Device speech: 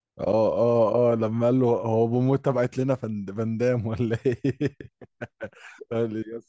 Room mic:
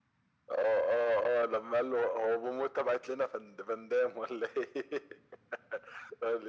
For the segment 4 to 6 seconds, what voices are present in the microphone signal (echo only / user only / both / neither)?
echo only